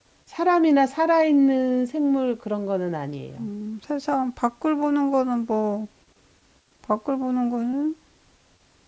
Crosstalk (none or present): none